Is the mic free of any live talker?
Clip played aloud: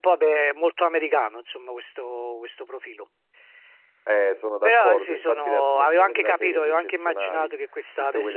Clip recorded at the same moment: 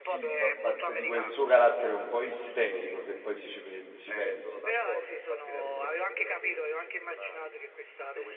No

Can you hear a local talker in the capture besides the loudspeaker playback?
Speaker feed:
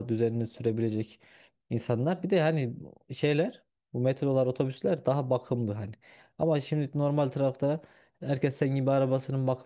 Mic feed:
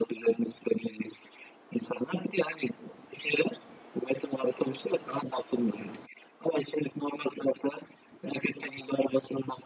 No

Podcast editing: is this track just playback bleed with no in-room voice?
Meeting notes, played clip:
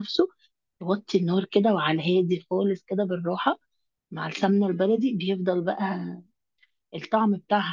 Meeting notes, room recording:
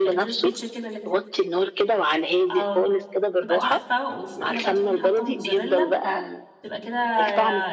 No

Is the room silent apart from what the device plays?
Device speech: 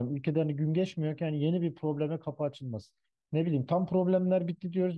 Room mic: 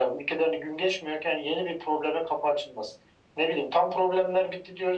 Yes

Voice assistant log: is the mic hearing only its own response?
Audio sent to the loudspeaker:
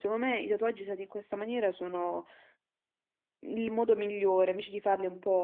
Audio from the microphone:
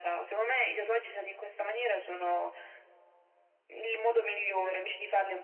Yes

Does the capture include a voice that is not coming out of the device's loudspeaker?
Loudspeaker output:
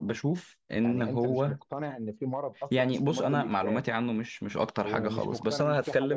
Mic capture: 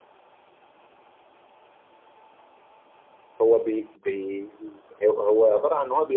Yes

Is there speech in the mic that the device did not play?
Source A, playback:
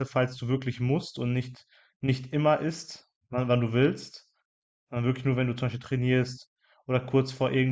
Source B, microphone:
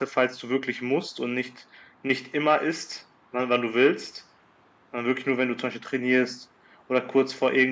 No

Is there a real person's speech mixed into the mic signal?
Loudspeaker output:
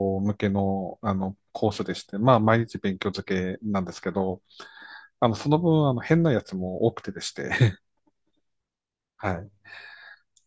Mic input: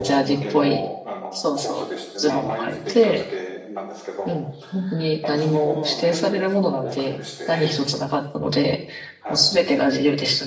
Yes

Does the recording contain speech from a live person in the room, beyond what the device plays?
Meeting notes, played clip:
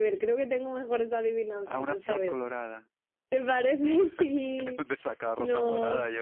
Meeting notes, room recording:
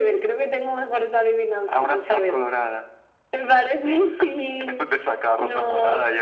No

